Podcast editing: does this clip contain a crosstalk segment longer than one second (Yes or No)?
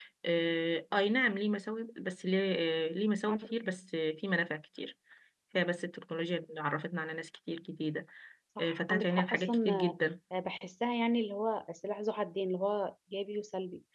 Yes